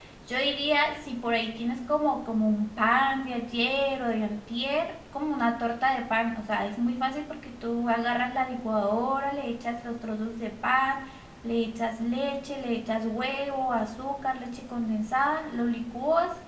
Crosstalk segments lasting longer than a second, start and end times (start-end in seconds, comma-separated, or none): none